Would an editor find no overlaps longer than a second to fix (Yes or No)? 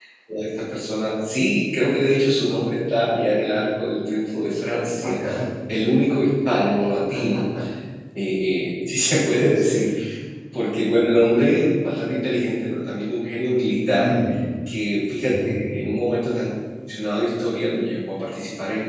Yes